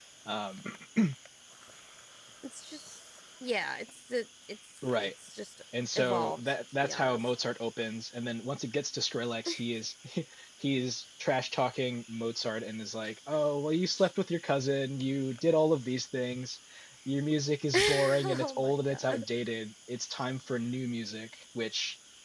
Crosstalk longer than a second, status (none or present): present